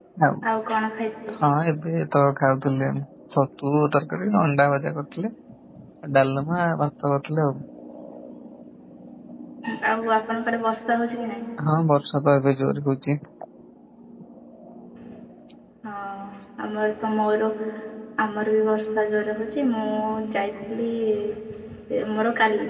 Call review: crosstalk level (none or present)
none